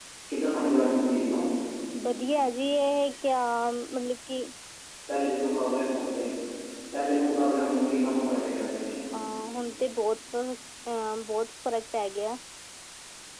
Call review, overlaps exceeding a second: none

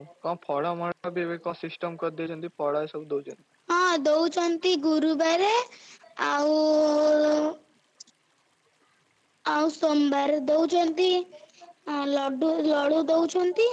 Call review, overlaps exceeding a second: none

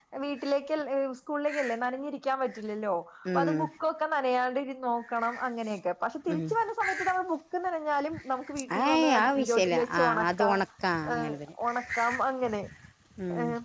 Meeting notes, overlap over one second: present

